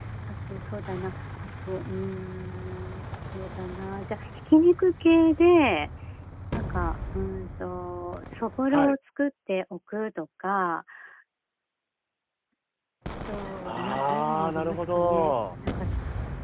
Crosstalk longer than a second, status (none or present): present